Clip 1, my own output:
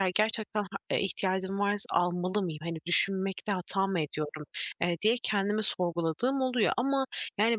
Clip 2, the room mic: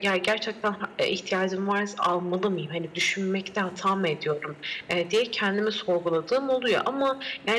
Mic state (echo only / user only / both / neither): echo only